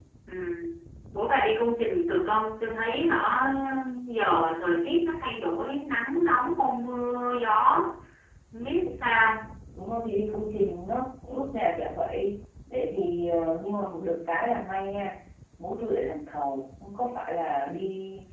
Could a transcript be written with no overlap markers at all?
Yes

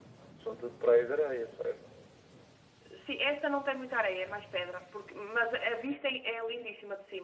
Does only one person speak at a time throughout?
Yes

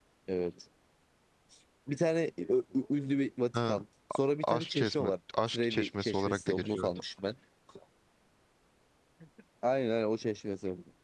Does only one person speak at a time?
No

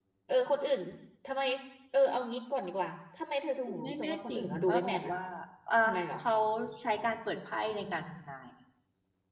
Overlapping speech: Yes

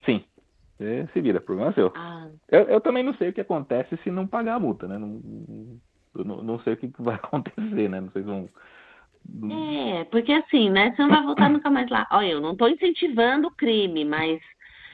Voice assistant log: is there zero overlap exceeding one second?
Yes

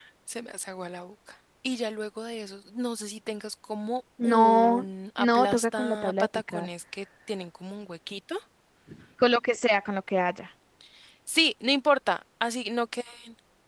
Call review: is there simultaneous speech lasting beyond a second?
Yes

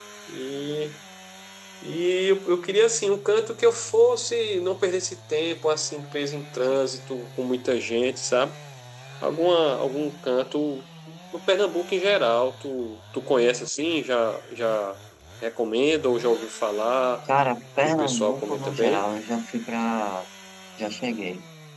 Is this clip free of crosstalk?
No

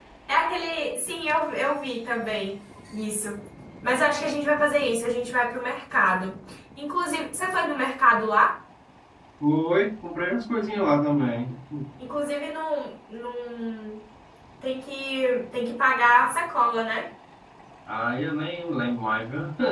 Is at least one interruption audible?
No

